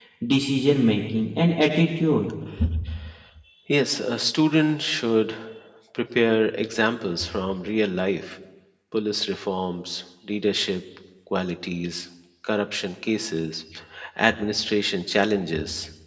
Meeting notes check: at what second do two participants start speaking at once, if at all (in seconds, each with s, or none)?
none